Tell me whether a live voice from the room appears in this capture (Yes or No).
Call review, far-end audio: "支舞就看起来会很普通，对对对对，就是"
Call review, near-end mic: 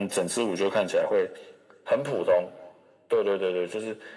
No